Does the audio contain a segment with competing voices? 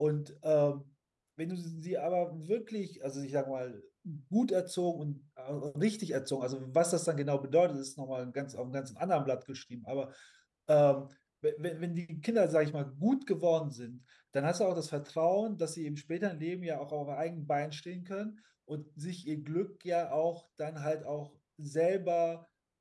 No

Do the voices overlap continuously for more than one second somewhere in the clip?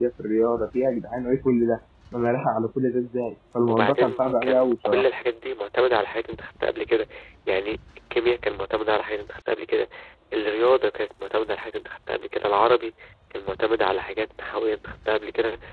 Yes, from 3.7 s

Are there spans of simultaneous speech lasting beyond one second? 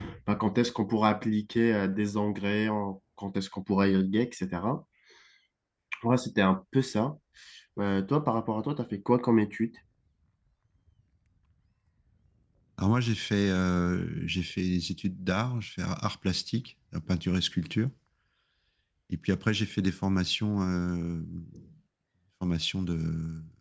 No

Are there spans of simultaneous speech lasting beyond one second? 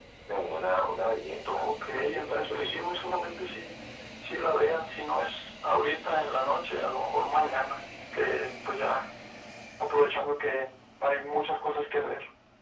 Yes, from 1.4 s

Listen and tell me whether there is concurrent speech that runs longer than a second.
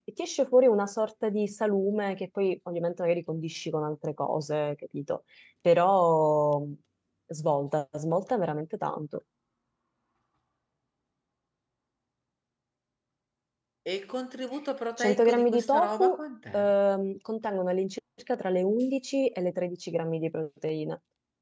Yes, from 15.0 s

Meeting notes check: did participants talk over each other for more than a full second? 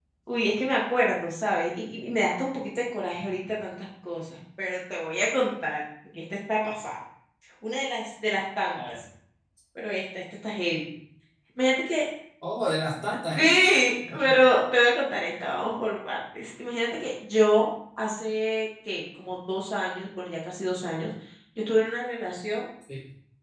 No

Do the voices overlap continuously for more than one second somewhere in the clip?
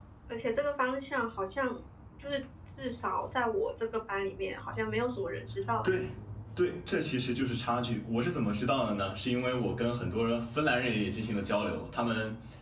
No

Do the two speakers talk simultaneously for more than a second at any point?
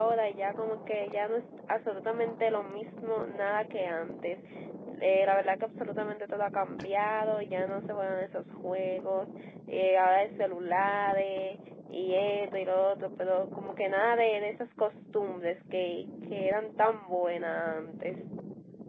No

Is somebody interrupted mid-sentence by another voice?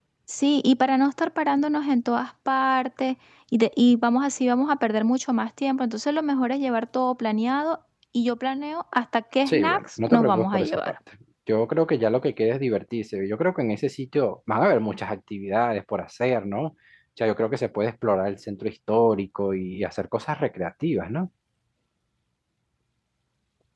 Yes, from 9.5 s

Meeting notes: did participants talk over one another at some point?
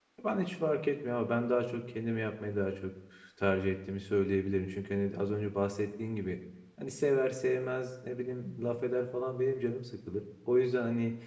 No

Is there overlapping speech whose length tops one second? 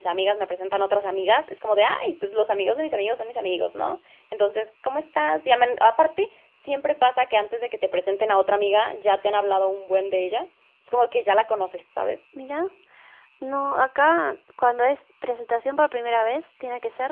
No

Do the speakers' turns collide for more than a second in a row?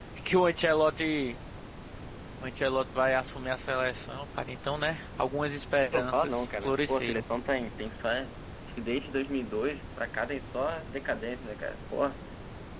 Yes, from 5.9 s

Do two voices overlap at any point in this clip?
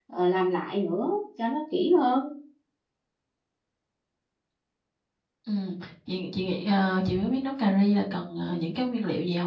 No

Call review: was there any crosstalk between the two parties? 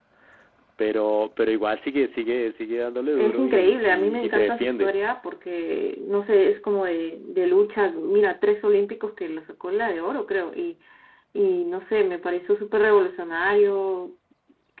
Yes, from 3.2 s

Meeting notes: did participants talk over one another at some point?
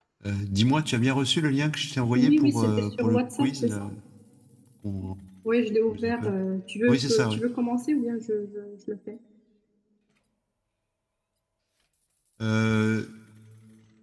Yes, from 2.1 s

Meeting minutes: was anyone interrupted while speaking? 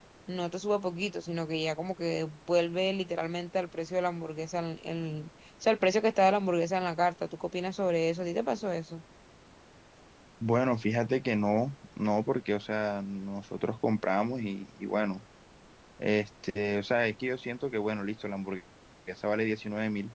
No

